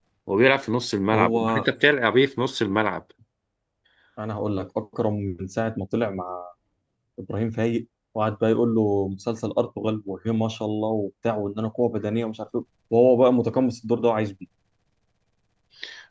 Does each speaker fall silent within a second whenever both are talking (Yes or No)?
Yes